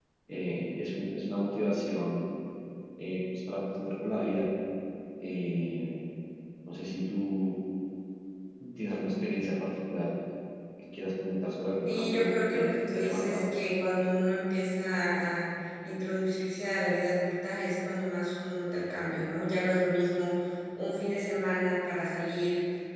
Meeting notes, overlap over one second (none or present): present